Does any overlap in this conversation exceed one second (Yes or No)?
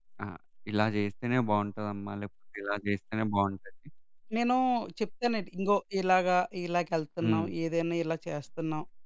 No